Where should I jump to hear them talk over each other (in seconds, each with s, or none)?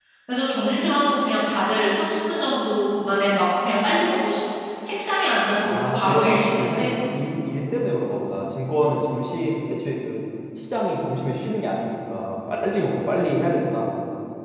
5.6 s